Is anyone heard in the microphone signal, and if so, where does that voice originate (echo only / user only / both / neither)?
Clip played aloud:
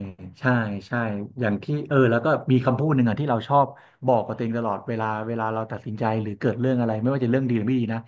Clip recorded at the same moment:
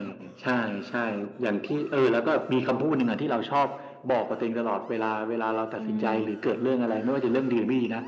both